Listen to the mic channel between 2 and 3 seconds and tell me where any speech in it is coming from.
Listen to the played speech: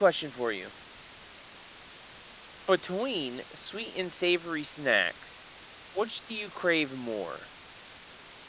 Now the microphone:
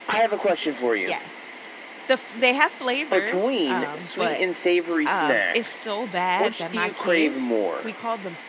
user only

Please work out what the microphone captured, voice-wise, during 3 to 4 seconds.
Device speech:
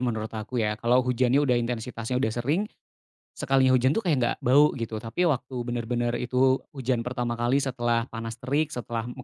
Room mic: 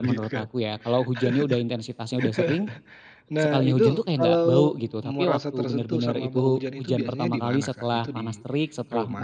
both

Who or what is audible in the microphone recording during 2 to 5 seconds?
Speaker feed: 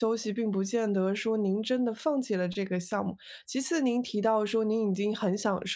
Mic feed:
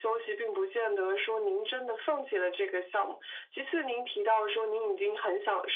echo only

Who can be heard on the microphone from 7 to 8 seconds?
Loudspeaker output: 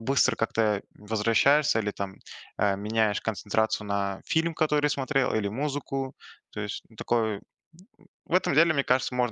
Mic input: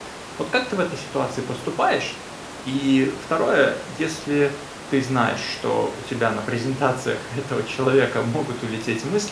user only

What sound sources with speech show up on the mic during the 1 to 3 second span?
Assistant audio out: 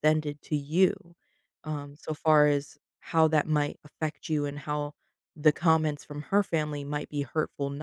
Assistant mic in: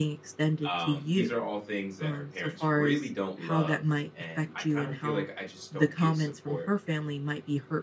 both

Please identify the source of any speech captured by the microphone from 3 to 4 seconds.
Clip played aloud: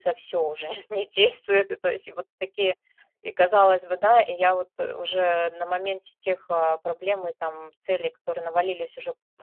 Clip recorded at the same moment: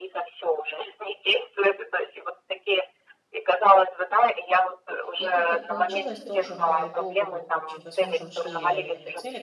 echo only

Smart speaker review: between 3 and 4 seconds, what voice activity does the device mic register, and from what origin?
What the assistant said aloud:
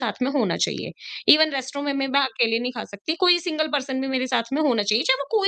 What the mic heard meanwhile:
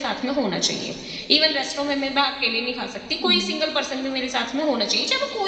both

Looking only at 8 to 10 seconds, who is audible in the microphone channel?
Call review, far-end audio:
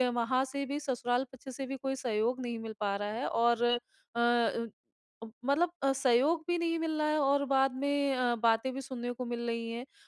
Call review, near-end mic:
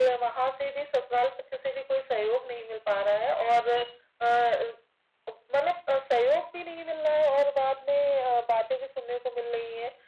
echo only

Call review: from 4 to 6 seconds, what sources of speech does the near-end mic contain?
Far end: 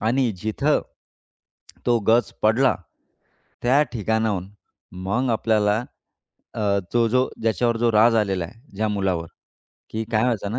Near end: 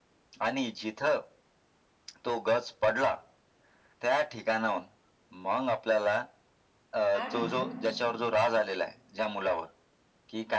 echo only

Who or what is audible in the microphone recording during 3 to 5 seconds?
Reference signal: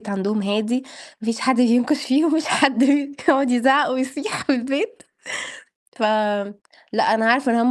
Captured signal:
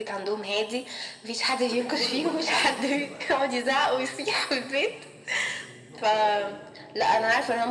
both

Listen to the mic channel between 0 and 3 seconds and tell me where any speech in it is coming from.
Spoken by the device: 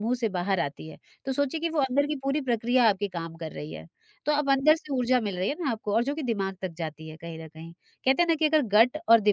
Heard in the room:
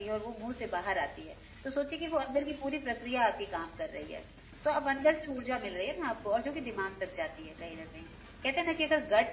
echo only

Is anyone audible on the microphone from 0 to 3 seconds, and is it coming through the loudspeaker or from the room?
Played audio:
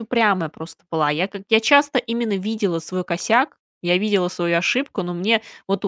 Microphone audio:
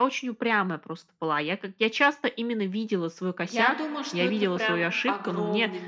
echo only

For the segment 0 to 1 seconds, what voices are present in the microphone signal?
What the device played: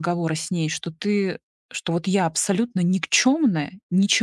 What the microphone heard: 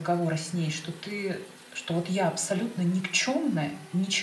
echo only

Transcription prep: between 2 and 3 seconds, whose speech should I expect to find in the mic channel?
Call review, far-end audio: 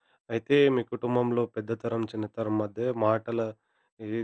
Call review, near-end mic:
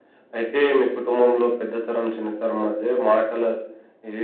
echo only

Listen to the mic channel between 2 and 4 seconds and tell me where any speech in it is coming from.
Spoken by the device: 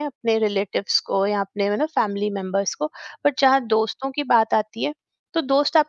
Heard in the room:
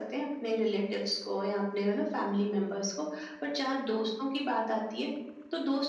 echo only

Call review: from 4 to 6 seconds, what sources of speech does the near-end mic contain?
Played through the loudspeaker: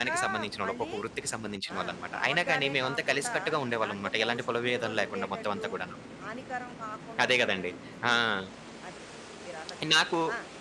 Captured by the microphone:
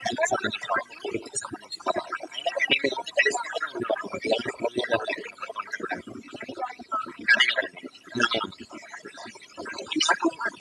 echo only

